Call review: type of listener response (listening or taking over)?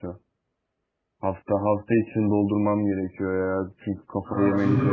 taking over